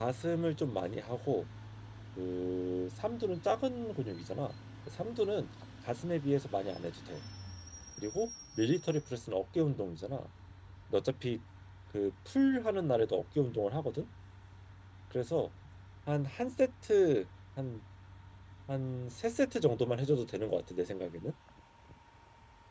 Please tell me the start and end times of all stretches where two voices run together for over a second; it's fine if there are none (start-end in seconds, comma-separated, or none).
none